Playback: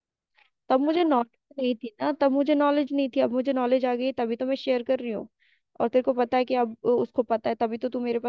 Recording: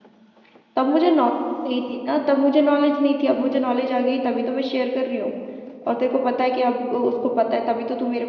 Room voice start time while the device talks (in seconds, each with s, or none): none